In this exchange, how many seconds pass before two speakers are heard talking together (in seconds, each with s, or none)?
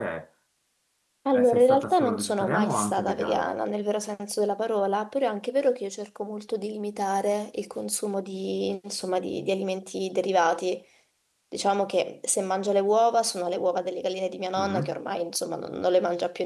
1.3 s